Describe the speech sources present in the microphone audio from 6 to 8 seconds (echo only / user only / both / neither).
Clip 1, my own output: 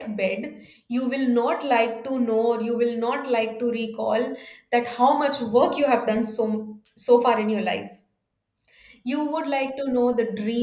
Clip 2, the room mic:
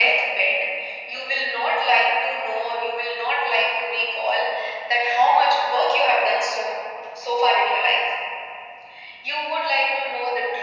echo only